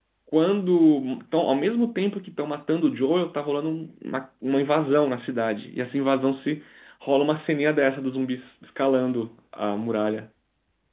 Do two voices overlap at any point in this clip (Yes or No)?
No